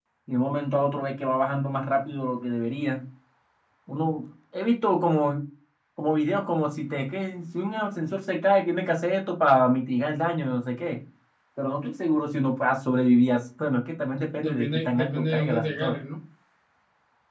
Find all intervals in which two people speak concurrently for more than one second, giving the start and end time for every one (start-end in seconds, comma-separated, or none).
14.3-16.0